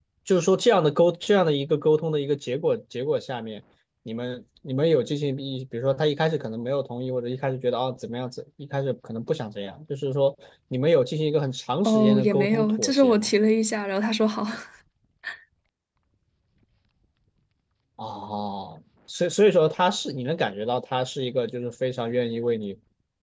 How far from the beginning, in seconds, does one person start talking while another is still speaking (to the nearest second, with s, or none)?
12 s